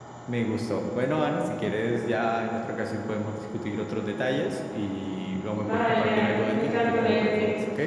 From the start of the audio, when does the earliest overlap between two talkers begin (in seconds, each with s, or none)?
5.5 s